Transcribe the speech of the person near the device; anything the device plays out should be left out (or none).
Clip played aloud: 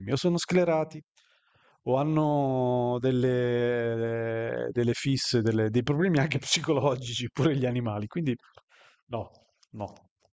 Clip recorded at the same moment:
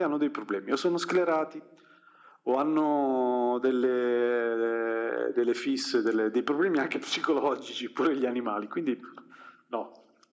none